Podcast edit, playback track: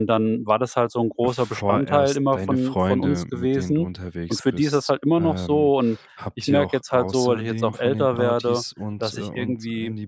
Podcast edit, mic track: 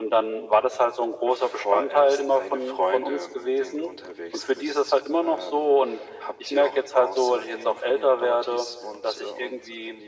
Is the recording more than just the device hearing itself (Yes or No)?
No